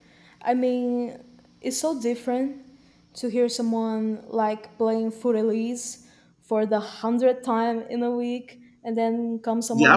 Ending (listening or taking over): taking over